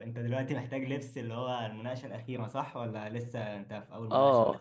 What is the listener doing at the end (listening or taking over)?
taking over